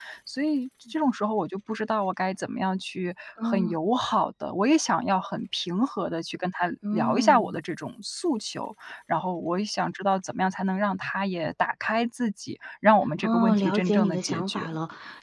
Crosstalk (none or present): present